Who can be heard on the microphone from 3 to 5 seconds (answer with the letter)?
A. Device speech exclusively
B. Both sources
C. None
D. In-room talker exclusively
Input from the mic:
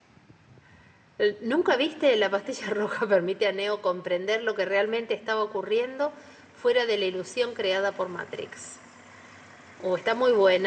D